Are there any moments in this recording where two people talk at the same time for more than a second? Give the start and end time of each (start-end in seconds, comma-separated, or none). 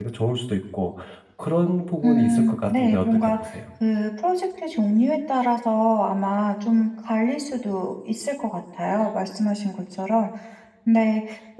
2.0-3.5